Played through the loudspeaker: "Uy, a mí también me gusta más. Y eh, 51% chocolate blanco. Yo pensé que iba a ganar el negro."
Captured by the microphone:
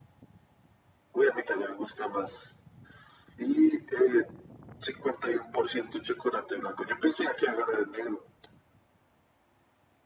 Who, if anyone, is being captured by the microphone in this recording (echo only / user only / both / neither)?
echo only